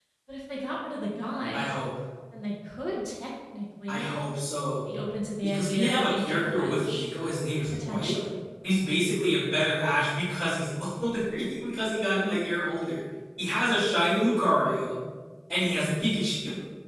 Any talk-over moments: Yes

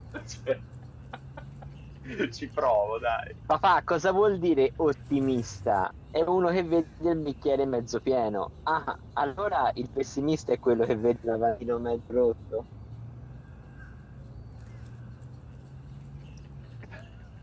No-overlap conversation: Yes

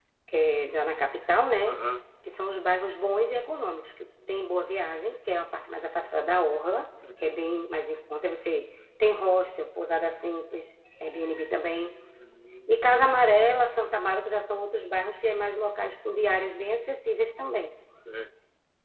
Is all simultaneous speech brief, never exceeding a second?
Yes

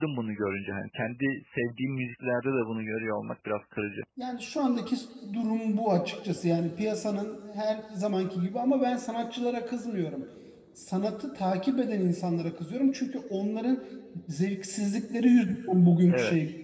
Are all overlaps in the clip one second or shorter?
Yes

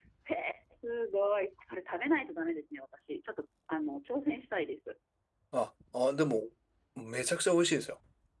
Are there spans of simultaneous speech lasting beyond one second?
No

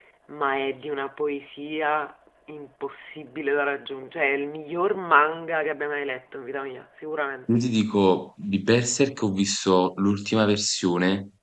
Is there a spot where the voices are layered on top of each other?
No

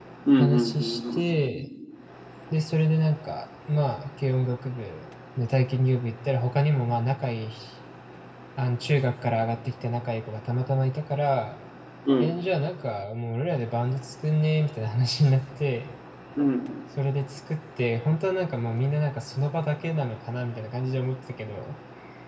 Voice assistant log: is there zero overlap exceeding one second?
No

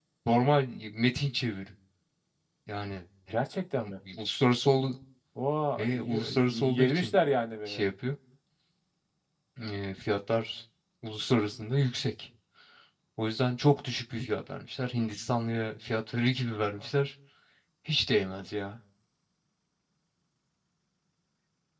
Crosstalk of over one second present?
Yes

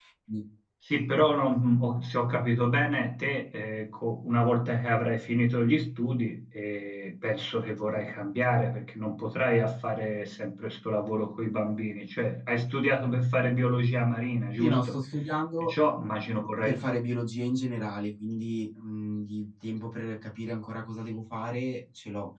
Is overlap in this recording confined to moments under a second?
Yes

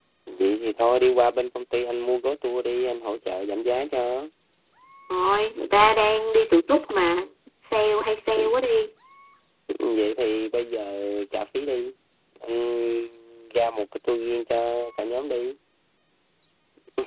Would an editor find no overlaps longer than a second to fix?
Yes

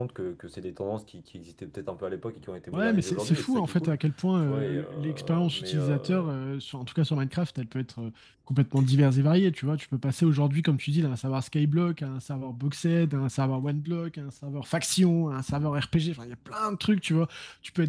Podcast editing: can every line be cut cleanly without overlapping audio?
No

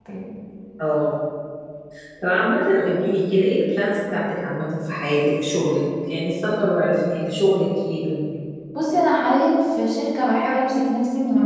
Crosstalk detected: No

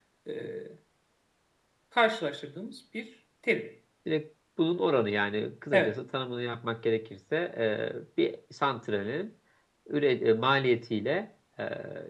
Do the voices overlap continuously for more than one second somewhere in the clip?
No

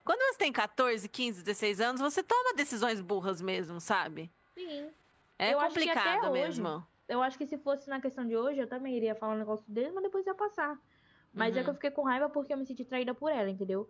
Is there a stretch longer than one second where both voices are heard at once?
Yes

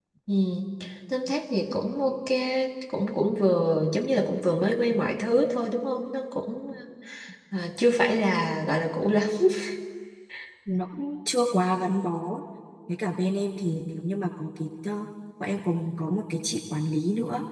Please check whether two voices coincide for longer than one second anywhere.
No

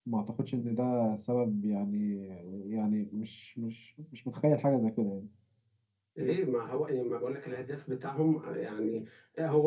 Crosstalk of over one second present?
No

